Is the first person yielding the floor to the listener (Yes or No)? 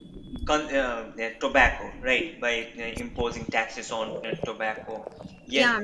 Yes